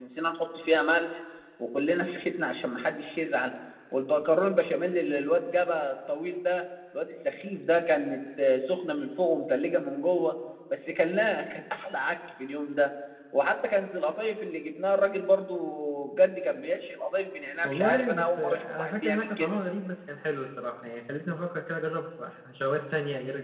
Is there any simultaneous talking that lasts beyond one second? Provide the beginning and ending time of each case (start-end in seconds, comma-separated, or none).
17.6-19.6